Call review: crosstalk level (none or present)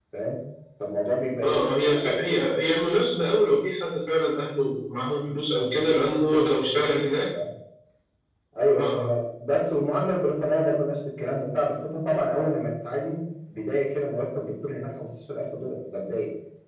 present